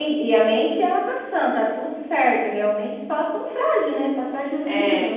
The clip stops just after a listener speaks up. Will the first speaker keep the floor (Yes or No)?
No